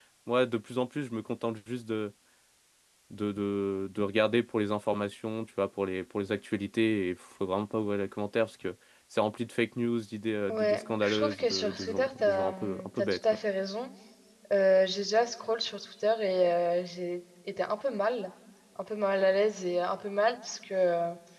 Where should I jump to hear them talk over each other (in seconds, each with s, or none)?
10.5 s